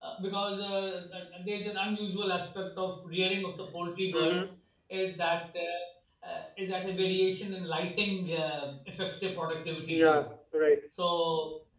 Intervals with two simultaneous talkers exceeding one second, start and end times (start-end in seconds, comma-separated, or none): none